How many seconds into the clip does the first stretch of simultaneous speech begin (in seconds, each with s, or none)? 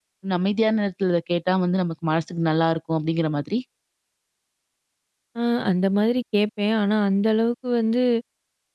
none